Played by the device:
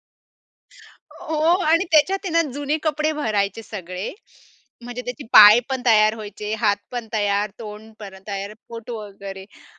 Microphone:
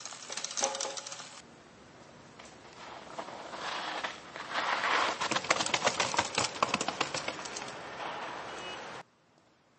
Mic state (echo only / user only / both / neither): neither